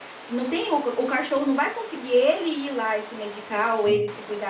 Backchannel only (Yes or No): Yes